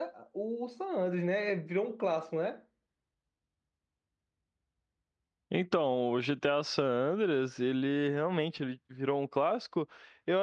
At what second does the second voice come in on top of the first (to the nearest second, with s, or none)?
none